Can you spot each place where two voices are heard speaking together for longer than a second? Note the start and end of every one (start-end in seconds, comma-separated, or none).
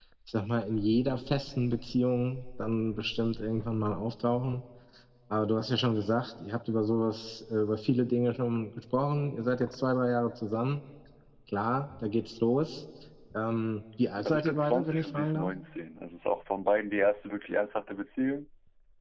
14.2-15.5